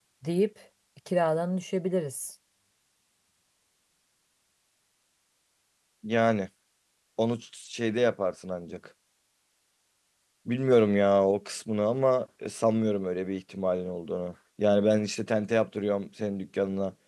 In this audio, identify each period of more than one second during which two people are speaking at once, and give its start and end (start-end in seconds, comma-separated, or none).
none